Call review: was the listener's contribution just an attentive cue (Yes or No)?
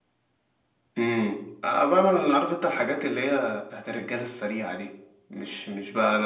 Yes